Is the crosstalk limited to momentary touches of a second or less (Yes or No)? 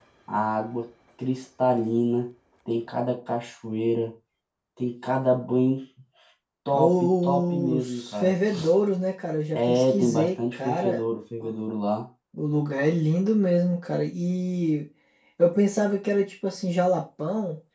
No